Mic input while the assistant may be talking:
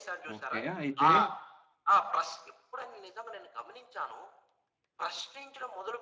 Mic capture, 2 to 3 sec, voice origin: echo only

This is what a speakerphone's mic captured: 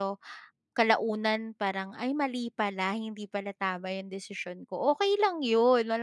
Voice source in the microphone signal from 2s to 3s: user only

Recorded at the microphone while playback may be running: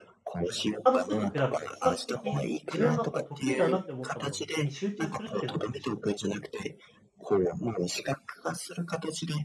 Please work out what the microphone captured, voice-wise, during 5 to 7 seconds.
both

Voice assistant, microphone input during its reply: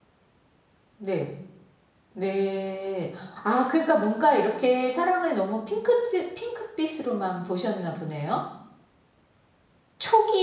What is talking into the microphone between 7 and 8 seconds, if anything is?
user only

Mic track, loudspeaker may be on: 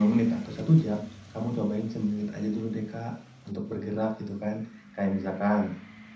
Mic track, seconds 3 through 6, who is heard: echo only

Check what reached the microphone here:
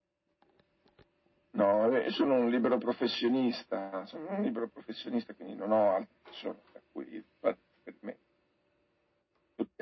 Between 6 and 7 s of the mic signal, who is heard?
echo only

